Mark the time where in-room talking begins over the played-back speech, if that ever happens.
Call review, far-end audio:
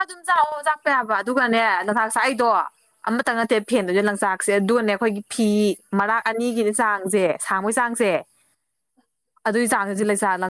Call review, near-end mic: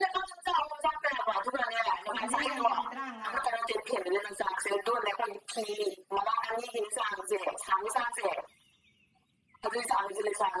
2.2 s

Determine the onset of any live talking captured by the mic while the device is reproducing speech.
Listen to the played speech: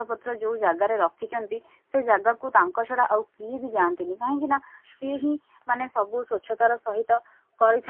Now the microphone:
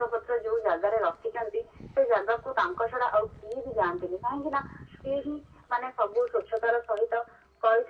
none

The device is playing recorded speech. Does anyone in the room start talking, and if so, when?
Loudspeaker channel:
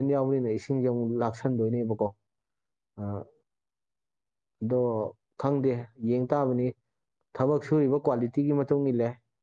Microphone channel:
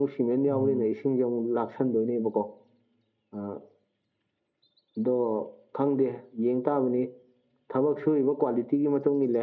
0.4 s

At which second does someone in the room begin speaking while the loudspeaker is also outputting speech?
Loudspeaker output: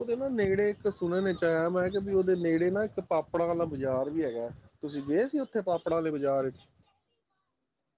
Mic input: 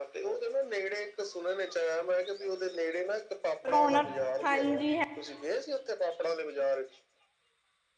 3.7 s

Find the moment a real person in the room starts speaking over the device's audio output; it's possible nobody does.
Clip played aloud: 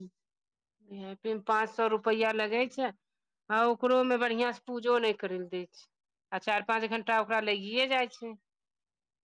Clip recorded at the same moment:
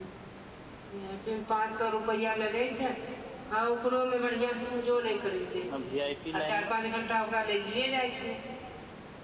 4.9 s

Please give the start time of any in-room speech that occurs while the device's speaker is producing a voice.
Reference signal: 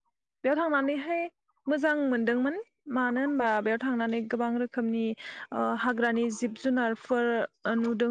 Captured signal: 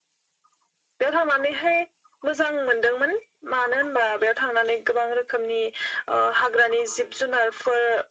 none

